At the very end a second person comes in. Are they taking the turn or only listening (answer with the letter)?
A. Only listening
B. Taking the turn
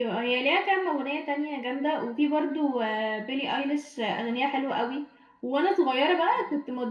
A